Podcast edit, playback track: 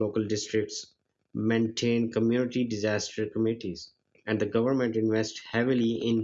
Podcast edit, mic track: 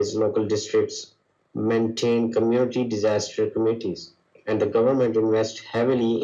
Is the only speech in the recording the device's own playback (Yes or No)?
Yes